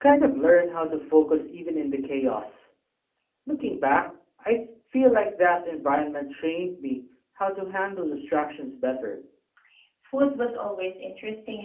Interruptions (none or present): none